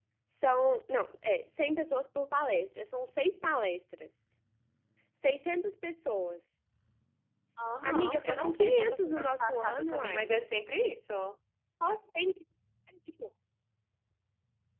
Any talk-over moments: Yes, from 7.8 s

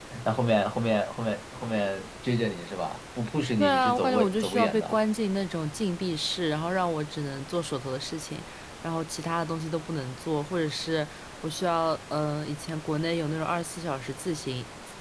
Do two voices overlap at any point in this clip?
Yes, from 3.6 s

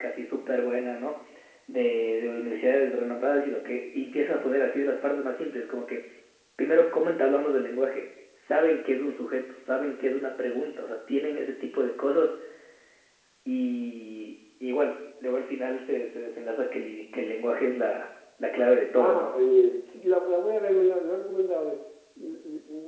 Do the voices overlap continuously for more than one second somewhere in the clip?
No

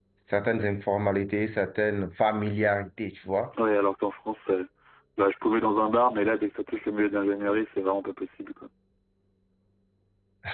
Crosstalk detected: No

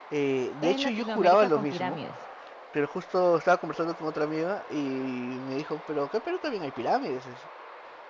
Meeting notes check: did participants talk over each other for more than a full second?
Yes, from 0.6 s

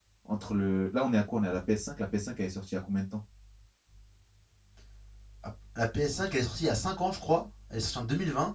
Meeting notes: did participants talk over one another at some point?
No

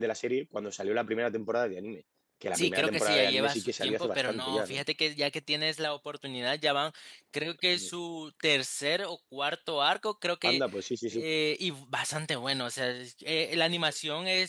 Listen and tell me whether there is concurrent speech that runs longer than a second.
Yes, from 2.5 s

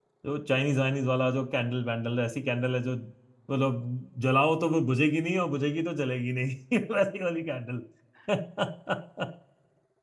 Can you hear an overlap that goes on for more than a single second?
No

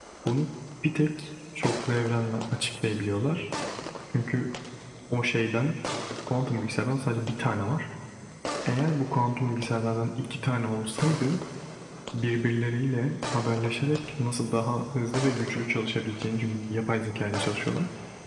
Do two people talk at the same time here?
No

